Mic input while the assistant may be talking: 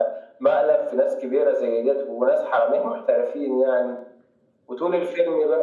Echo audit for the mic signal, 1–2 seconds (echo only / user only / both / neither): echo only